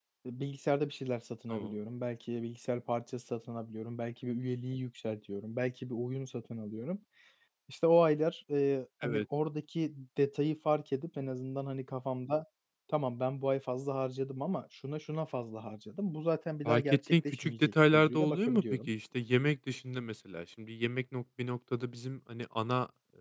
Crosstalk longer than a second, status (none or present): present